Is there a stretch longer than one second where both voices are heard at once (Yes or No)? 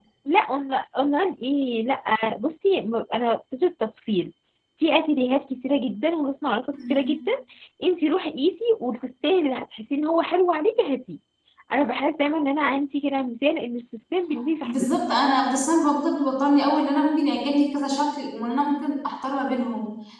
No